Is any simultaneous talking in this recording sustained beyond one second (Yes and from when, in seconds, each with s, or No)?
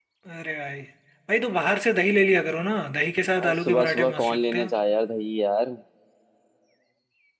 Yes, from 3.4 s